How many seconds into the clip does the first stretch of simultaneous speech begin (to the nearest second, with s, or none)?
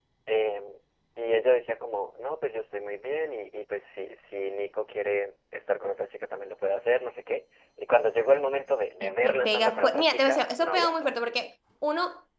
9 s